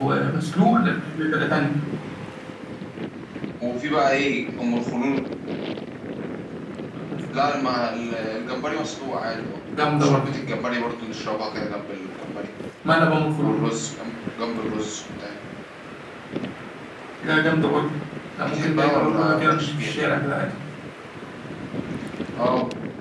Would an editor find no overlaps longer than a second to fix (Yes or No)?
No